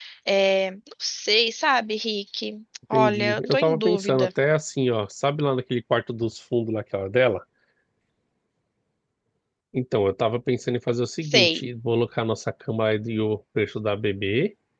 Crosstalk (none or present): present